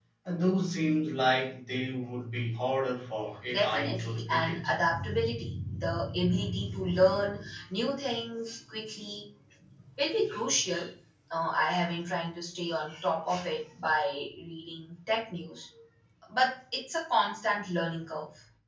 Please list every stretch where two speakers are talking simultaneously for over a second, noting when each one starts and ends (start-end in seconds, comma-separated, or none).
3.5-4.7